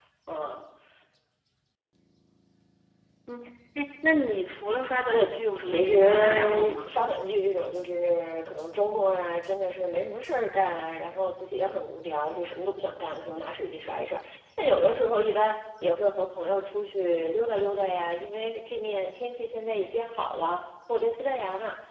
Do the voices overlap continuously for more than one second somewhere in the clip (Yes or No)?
Yes